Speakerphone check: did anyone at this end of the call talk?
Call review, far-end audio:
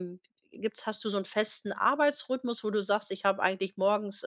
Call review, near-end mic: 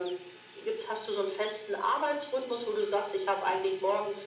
No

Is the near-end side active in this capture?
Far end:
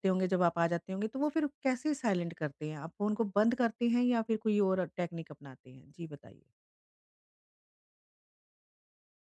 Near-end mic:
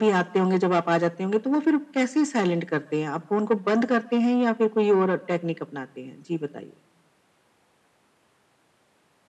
No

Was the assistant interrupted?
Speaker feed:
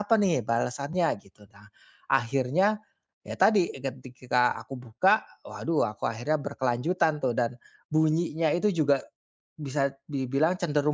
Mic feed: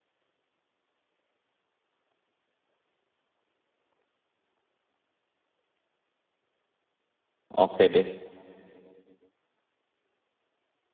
Yes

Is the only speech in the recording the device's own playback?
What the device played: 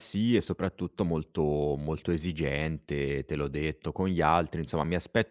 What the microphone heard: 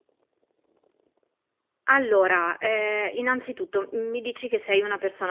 No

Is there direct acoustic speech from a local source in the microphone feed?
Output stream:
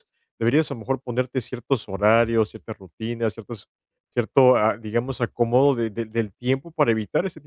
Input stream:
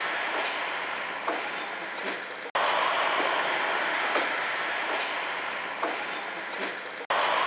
No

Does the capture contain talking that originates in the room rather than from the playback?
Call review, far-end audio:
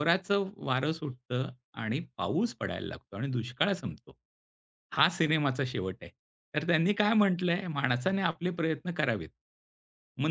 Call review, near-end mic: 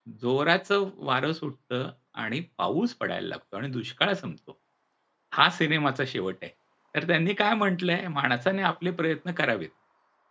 No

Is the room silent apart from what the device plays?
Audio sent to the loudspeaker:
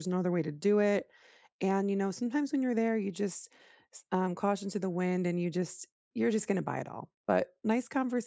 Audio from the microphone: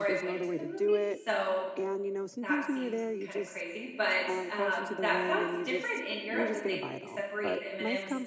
No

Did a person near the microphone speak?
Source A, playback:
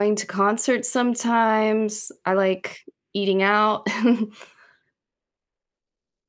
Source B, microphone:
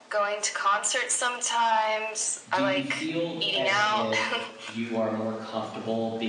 Yes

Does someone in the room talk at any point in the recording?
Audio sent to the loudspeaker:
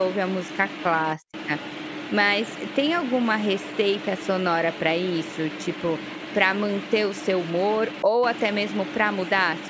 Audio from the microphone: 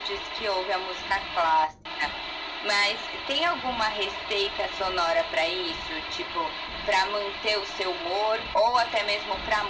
No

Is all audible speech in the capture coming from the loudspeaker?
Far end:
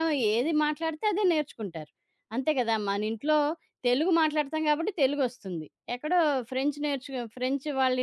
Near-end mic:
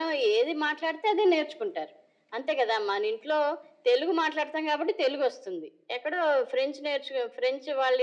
Yes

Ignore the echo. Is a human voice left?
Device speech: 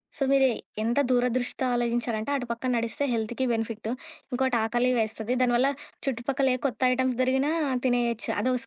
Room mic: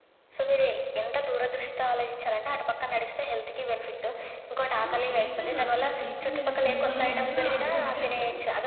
Yes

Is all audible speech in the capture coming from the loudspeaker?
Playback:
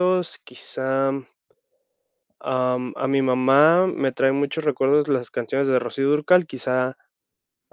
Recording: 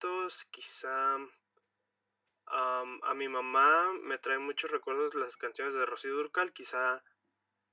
Yes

